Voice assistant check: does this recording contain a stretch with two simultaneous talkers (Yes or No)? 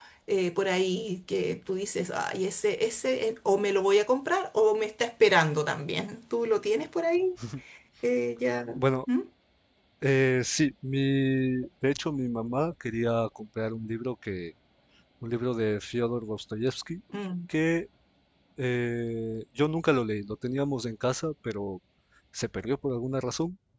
No